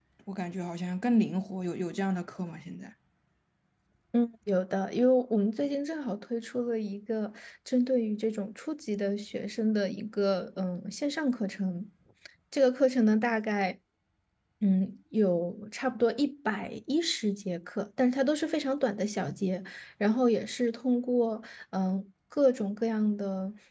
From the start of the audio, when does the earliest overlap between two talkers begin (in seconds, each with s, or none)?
none